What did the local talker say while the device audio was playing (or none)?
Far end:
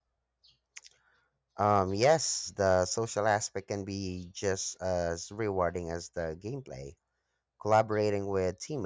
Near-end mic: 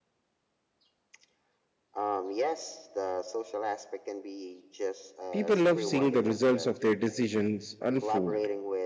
People love seeing the results of their decisions unfold,